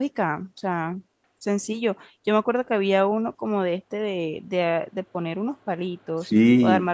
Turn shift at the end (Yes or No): Yes